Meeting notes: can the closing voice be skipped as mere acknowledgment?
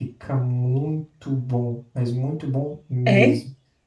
Yes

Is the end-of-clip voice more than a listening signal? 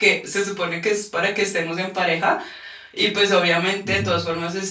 No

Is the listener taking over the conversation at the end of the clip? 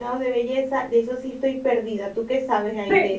Yes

